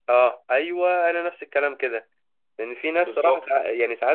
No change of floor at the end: Yes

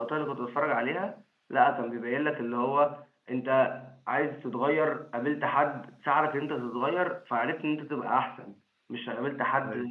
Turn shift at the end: No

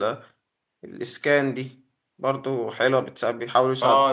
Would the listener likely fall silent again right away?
No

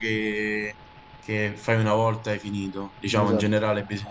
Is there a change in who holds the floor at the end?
No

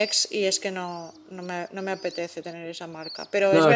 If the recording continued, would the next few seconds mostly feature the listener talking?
No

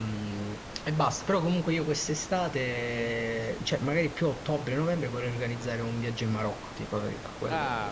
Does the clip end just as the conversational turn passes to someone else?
Yes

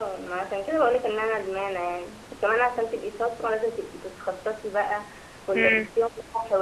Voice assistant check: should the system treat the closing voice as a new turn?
No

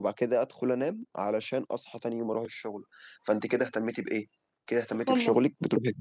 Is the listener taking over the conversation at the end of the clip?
No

